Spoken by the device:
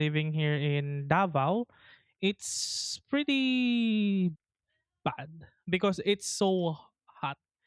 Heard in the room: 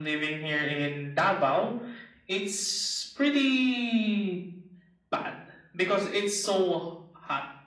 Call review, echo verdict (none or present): present